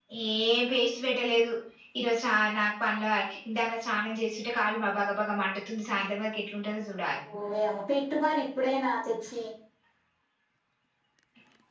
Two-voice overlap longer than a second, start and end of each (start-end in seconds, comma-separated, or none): none